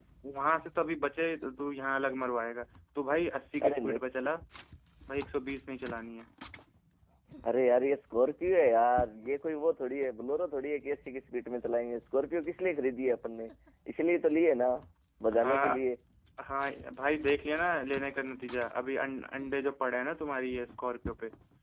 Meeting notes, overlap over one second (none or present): none